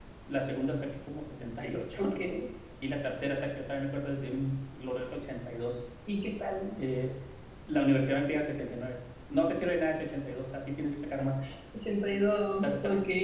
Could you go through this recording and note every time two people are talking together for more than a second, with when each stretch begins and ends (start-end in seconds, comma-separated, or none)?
none